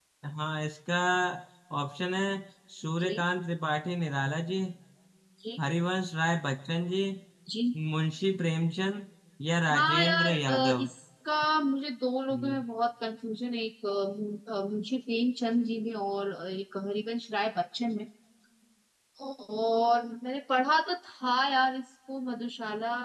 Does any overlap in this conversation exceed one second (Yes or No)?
Yes